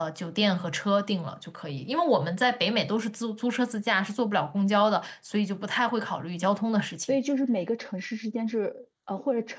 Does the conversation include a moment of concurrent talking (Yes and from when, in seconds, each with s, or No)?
No